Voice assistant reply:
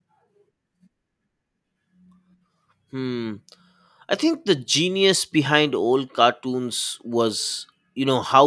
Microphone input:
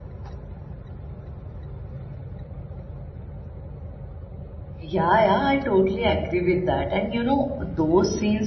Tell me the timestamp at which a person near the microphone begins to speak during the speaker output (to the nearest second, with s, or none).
5 s